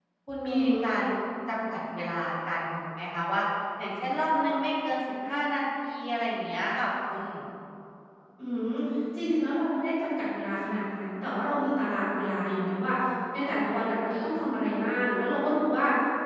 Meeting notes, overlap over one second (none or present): none